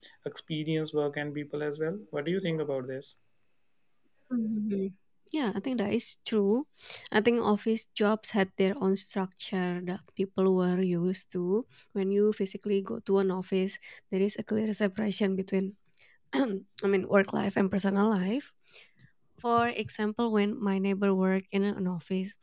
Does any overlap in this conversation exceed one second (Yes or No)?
No